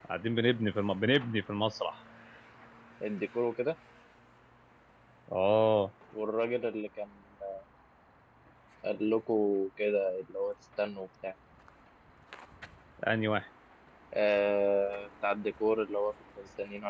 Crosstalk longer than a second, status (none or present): none